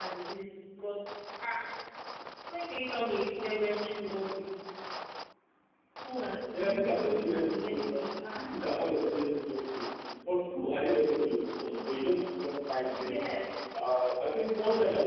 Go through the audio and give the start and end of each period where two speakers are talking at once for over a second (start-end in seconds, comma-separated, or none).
6.5-8.5